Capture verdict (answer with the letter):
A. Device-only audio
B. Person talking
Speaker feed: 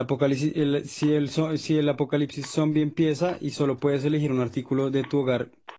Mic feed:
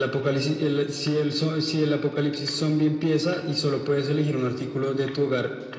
A